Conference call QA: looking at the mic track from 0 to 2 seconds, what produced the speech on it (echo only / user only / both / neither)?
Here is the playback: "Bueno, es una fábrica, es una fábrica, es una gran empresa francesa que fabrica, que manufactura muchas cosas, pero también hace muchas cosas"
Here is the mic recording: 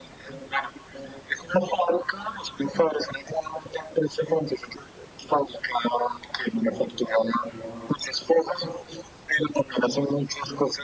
echo only